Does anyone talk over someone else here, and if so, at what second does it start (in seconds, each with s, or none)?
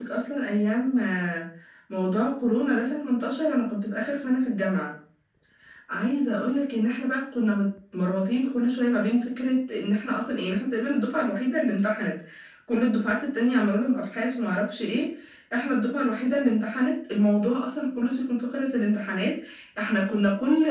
none